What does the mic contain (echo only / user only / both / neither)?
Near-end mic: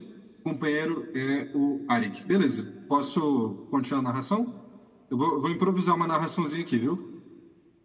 echo only